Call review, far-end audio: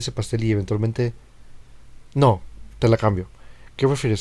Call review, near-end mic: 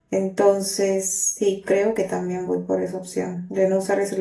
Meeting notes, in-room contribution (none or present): present